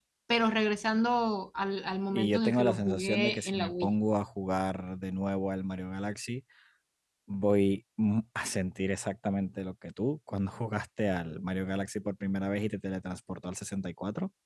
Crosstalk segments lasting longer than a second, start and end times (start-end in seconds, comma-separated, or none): 2.1-3.9